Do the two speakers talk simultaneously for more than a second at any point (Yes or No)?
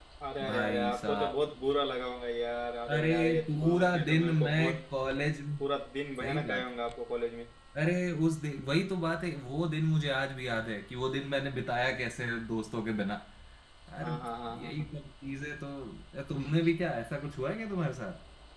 Yes